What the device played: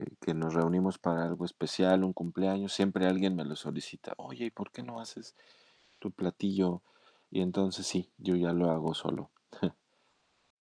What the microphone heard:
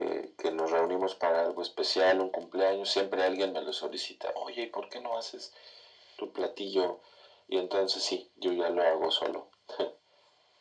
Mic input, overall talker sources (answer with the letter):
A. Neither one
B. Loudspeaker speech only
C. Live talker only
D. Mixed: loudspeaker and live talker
B